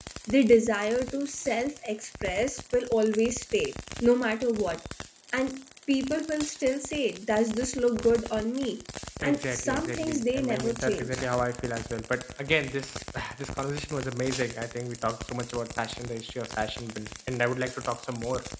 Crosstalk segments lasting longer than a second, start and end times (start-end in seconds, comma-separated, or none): 9.2-11.2